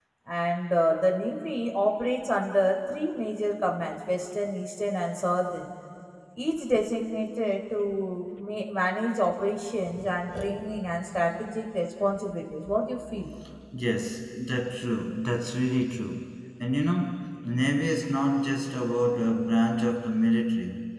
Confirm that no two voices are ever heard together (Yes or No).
Yes